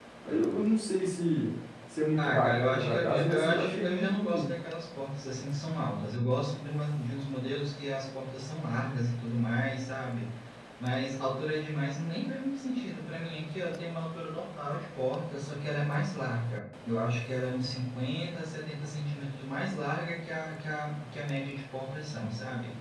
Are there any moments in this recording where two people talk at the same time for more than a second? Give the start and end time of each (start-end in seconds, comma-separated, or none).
2.2-4.5